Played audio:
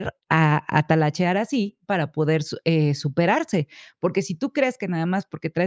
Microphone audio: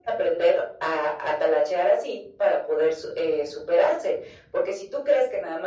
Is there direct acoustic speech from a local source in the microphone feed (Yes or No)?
No